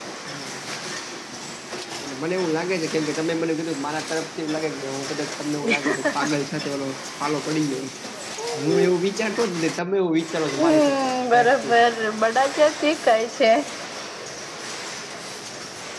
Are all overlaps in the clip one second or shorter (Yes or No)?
Yes